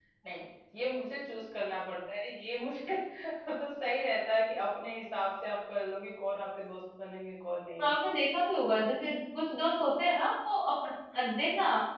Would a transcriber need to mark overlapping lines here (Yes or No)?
No